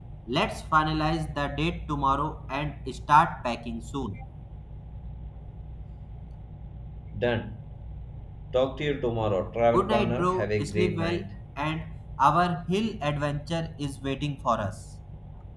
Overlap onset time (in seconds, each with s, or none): 9.7 s